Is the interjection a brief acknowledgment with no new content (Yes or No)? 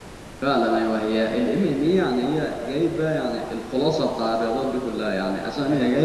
Yes